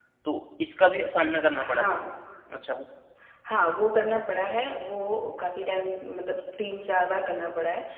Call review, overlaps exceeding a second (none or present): none